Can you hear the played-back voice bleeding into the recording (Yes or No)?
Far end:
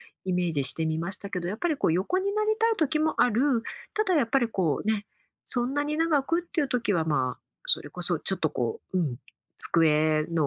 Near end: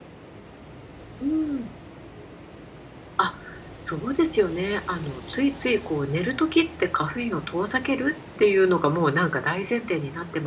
No